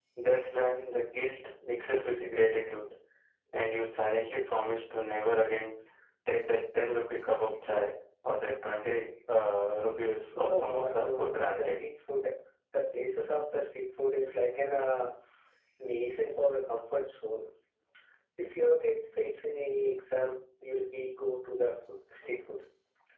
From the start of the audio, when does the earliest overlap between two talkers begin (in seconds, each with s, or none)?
10.3 s